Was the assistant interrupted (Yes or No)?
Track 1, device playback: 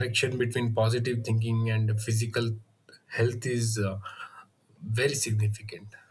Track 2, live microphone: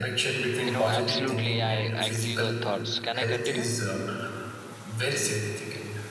Yes